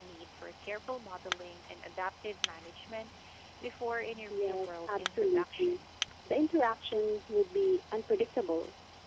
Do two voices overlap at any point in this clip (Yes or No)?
Yes